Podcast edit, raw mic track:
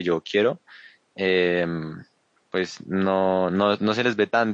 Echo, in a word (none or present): none